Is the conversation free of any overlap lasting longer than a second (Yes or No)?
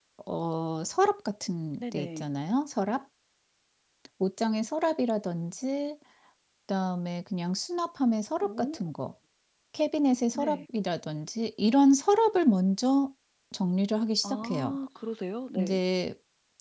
Yes